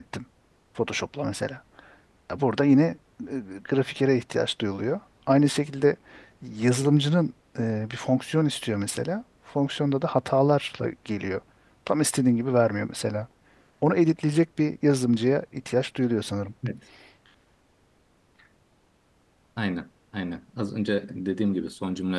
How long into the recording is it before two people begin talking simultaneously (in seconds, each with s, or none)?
none